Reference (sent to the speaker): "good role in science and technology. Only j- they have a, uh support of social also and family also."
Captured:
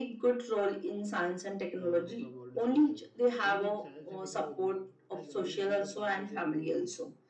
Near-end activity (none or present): present